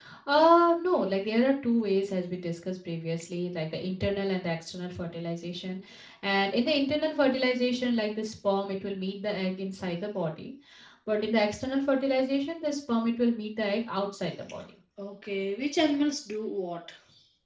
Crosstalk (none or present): none